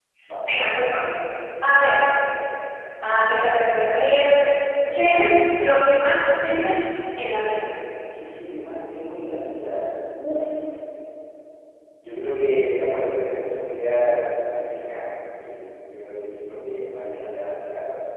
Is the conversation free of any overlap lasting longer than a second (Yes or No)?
Yes